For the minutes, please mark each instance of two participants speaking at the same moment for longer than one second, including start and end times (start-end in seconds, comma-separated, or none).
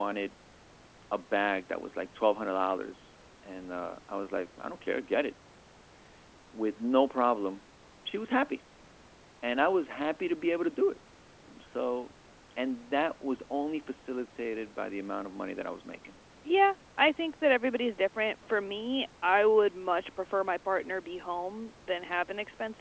none